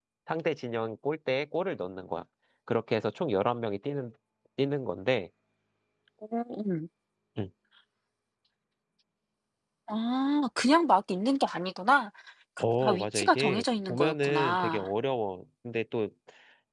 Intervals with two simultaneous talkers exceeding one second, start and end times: 12.8-14.9

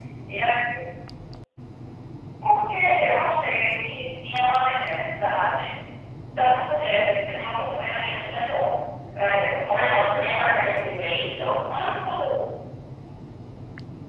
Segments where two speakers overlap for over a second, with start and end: 9.7-10.9

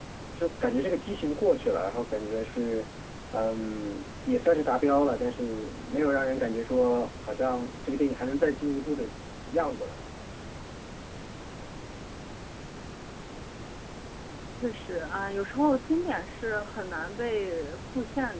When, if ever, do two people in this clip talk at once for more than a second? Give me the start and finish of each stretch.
none

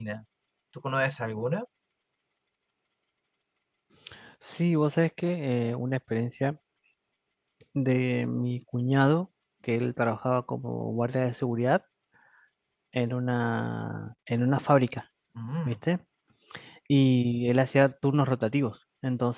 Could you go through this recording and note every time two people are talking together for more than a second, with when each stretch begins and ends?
none

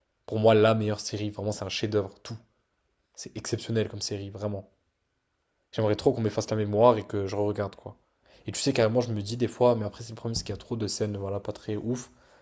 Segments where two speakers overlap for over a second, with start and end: none

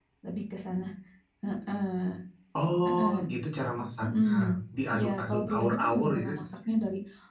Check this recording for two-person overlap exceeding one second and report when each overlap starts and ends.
4.9-6.3

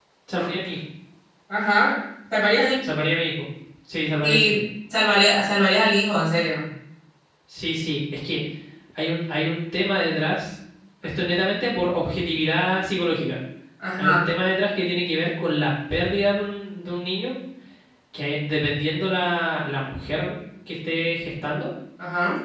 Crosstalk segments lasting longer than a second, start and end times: none

